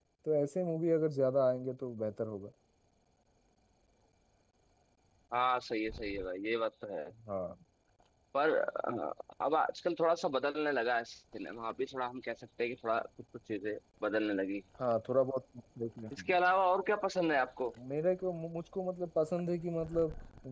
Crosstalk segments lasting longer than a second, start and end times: none

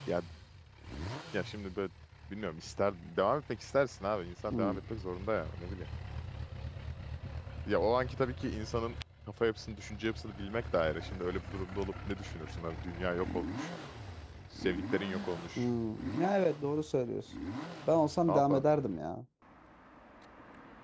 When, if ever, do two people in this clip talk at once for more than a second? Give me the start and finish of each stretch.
none

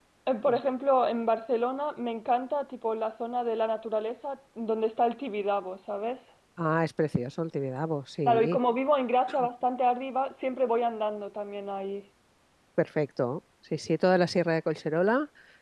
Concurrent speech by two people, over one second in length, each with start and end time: none

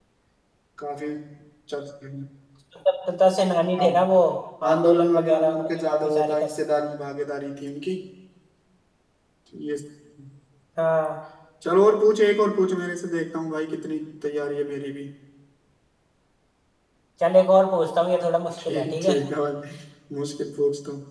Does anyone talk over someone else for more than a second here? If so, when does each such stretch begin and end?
4.7-6.5

